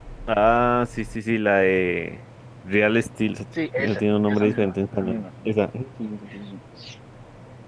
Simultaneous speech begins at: 3.8 s

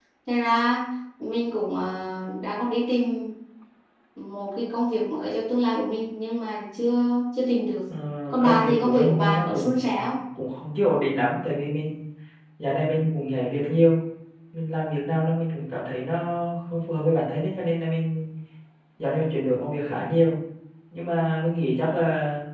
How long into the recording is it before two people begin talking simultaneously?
8.3 s

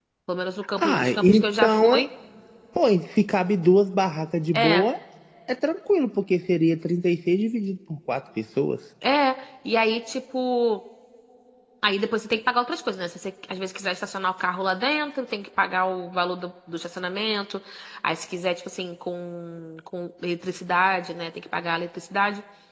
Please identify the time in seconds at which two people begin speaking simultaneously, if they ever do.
0.8 s

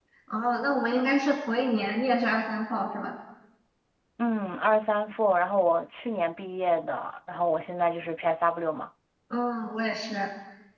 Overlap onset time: none

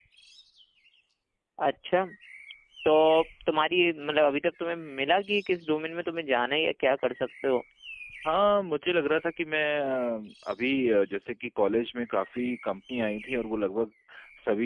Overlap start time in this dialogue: none

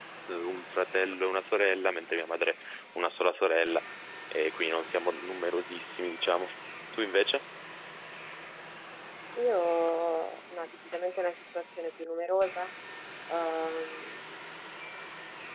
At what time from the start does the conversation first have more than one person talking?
none

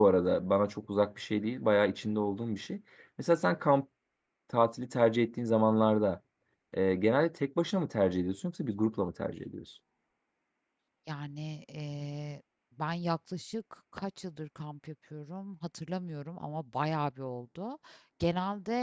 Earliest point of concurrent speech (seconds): none

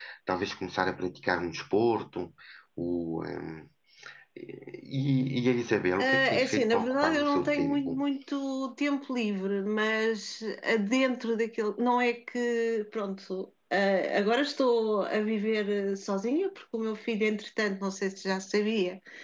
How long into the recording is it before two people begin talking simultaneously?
6.0 s

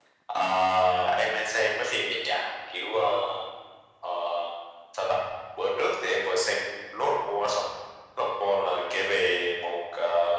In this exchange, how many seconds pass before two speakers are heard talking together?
none

